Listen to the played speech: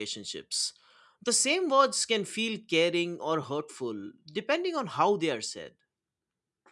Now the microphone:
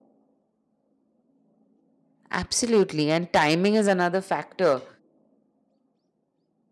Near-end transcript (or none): Absolutely. And timing is another factor.